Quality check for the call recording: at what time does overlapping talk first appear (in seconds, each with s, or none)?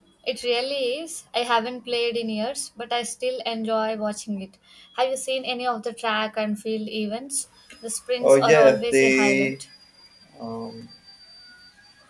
8.2 s